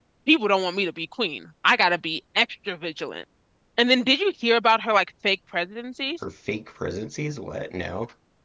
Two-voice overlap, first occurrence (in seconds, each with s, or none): none